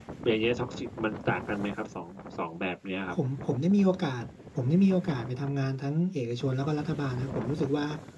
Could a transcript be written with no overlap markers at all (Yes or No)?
Yes